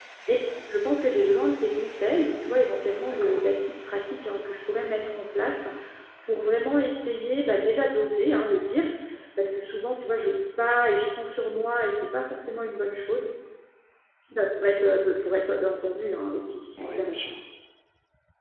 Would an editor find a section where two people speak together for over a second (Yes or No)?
No